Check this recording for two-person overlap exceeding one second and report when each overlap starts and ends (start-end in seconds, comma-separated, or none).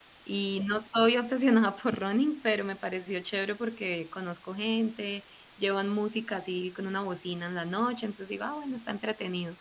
none